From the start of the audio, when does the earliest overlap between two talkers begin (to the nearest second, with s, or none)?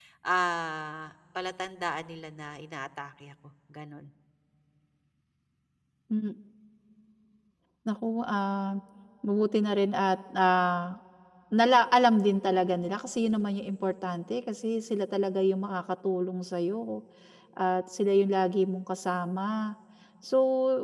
none